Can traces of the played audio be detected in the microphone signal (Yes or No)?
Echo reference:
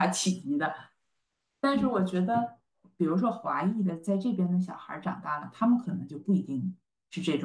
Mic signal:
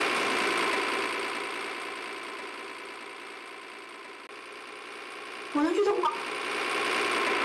No